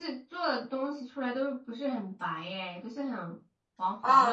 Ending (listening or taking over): taking over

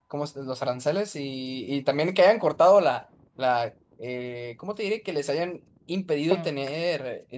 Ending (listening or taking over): listening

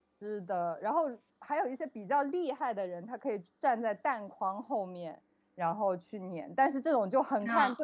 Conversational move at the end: listening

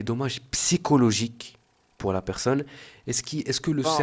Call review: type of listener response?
listening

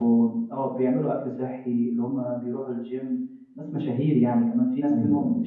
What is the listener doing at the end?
listening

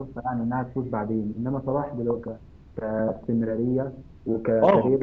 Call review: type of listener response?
taking over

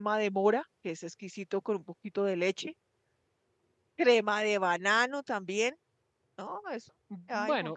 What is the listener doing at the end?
taking over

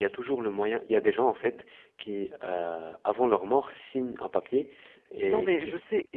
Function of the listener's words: taking over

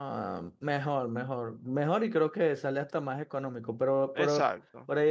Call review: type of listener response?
listening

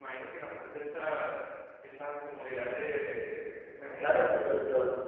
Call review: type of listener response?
taking over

